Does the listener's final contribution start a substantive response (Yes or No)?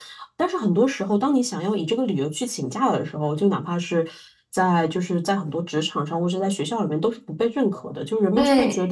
No